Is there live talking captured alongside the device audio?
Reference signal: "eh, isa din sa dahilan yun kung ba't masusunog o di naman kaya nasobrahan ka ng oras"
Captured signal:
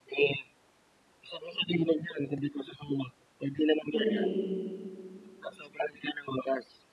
Yes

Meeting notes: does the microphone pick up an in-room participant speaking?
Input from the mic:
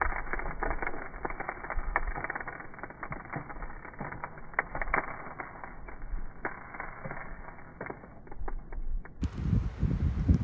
No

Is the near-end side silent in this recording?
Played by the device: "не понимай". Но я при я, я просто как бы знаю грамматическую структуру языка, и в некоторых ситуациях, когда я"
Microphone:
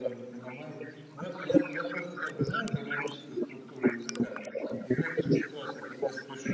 Yes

